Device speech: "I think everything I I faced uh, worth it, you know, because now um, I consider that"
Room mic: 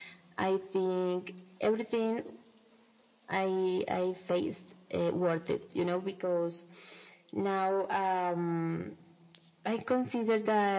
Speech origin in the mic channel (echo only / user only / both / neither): echo only